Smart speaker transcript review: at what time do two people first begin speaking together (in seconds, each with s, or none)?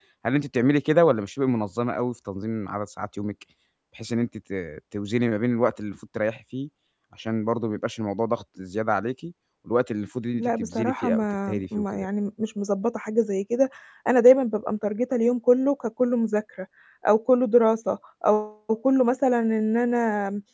10.4 s